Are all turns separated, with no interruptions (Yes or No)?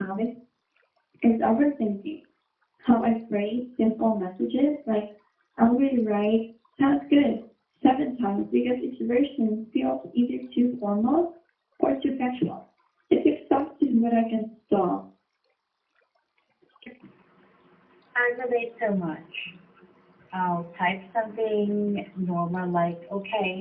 Yes